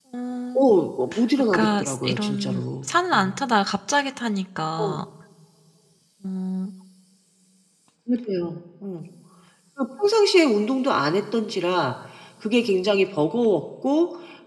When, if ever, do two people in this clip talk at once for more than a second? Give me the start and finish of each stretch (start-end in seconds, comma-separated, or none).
1.4-3.4